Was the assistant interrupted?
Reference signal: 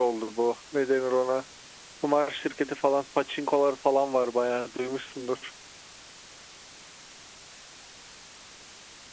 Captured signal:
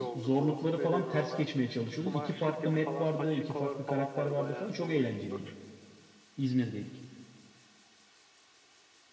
Yes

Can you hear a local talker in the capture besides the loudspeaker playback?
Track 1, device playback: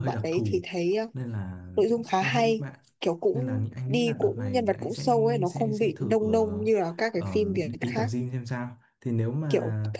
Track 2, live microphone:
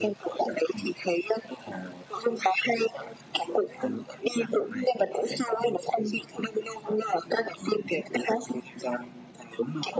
No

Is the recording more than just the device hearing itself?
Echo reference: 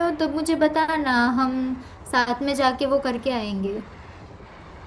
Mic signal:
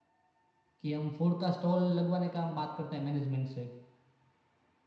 Yes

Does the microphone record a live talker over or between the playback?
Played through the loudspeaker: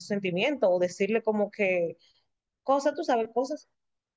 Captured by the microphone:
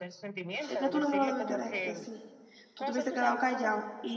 Yes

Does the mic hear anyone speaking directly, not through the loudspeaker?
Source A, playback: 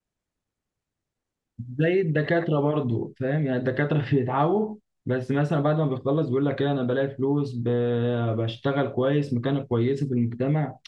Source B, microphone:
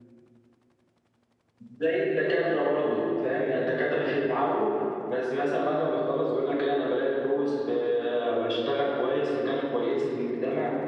No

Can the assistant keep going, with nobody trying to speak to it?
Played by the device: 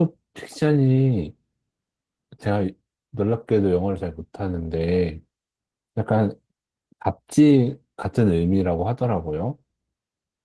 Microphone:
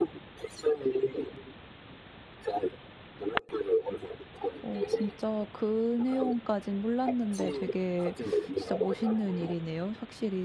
No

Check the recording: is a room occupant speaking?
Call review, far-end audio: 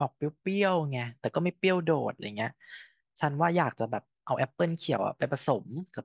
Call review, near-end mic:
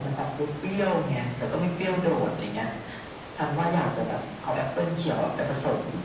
No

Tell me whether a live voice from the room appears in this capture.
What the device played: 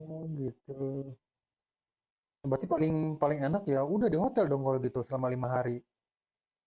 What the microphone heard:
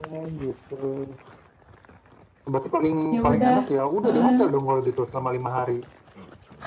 Yes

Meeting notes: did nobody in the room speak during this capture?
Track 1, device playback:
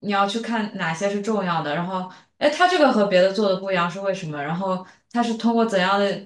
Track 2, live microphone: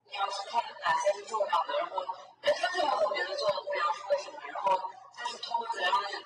Yes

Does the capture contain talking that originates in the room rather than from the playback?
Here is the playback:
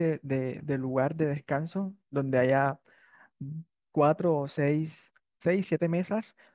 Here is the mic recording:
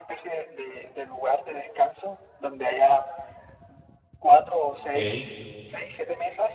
Yes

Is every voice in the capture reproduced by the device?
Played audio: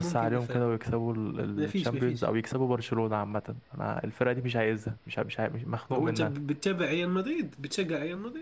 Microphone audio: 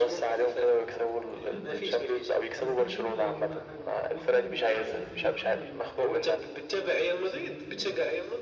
No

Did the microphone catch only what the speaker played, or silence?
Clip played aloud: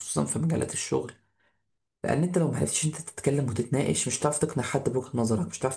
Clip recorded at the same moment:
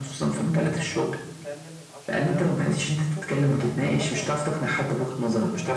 No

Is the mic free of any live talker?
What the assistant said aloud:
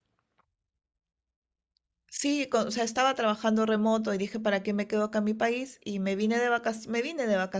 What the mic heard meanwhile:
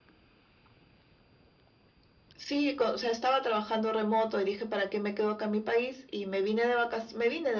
Yes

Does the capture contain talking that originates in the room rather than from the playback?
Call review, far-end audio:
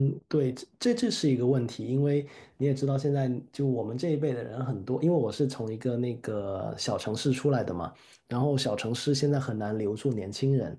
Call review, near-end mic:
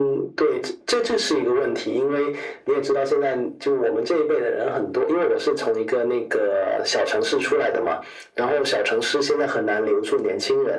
No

